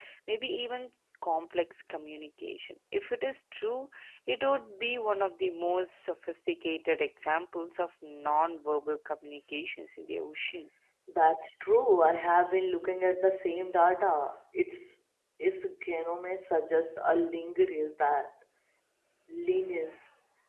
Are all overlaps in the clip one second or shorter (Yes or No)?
Yes